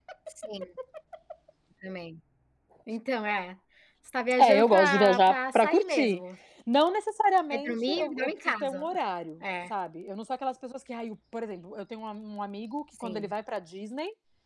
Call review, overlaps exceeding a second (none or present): present